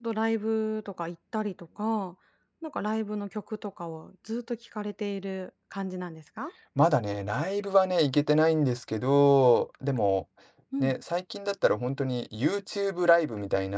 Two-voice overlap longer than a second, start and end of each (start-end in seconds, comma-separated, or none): none